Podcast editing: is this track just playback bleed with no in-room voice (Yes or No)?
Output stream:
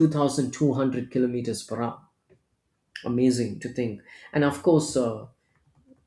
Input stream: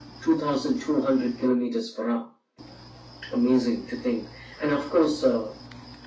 Yes